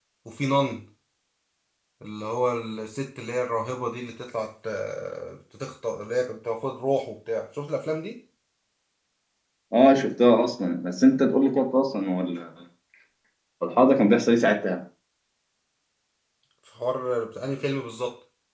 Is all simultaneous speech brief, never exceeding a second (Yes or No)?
Yes